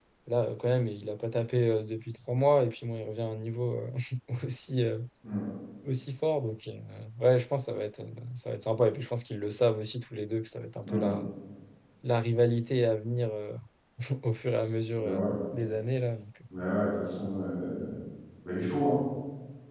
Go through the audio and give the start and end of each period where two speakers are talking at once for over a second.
none

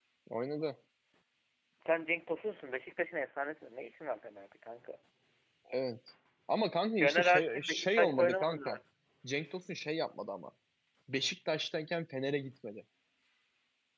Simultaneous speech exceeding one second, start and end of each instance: 7.0-8.7

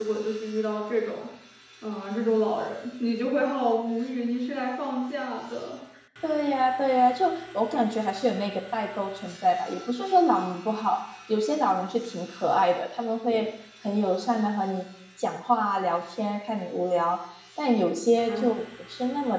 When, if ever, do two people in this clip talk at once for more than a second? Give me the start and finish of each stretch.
none

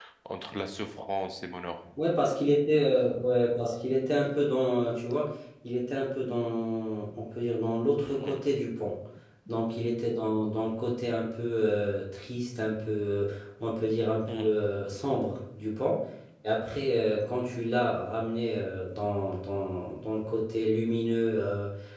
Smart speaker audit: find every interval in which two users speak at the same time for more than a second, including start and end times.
none

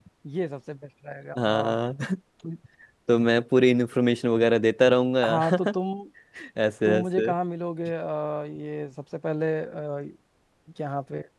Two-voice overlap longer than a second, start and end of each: none

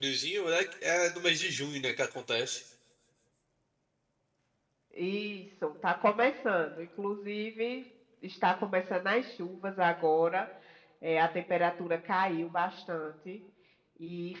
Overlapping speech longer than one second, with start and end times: none

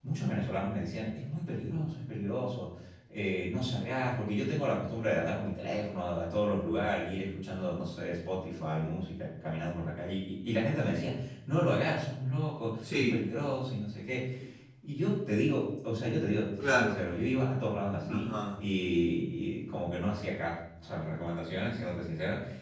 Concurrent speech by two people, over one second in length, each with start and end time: none

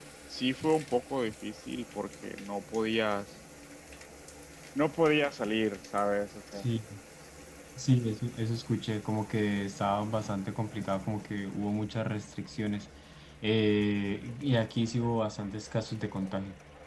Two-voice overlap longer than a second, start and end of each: none

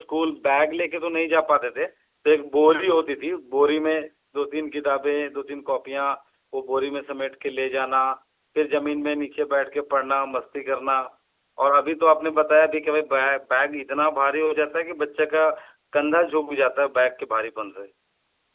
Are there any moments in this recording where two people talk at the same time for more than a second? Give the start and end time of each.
none

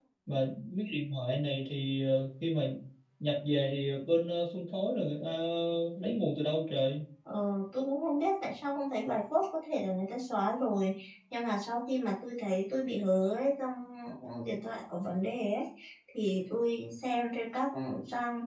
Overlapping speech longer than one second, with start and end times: none

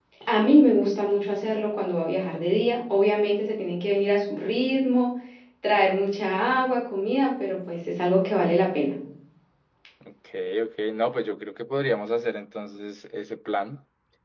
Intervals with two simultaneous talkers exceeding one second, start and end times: none

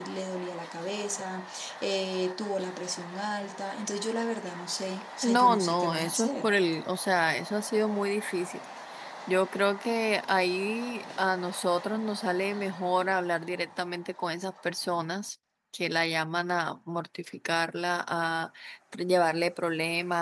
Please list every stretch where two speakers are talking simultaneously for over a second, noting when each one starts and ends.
5.2-6.5

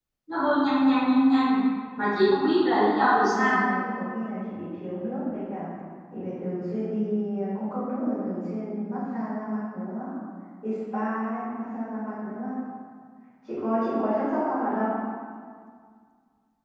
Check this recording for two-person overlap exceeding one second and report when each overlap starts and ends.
none

